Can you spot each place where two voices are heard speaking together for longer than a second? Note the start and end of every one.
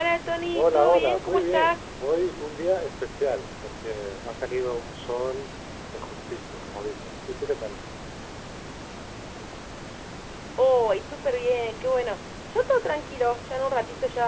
0.5-1.8

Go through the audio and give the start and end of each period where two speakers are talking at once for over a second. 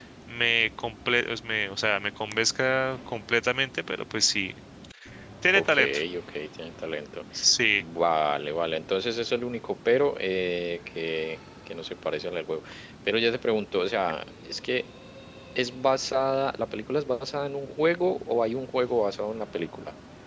none

